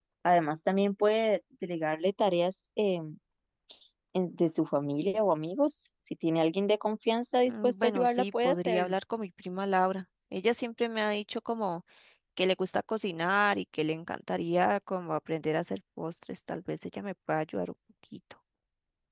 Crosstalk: present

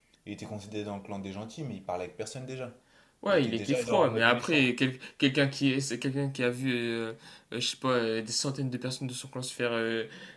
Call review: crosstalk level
present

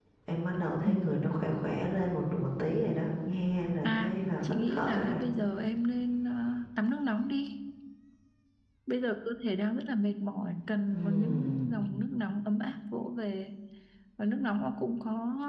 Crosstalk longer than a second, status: present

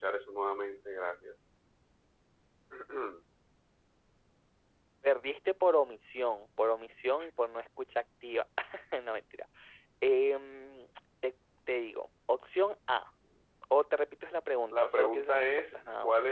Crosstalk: present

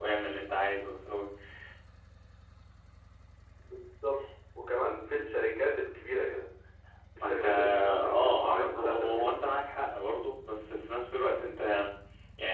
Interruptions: present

